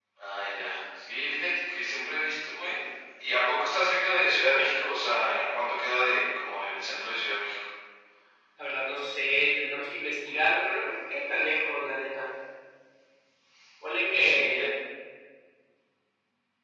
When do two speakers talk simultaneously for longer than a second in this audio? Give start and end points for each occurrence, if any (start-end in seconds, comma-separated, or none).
none